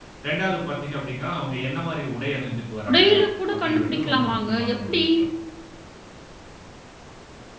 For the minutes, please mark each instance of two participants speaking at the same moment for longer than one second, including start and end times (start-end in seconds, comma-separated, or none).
3.5-5.0